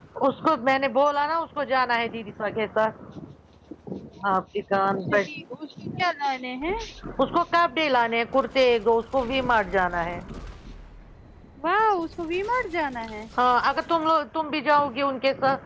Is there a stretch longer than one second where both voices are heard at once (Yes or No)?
No